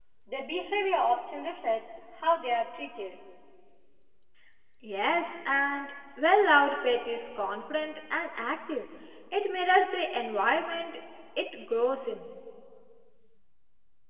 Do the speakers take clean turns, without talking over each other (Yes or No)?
Yes